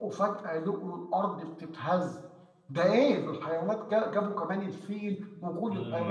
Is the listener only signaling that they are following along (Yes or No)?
No